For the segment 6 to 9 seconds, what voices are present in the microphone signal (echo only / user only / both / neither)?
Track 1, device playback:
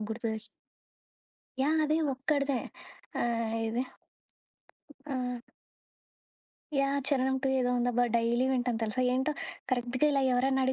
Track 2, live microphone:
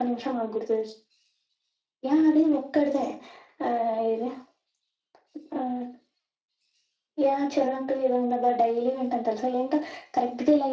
echo only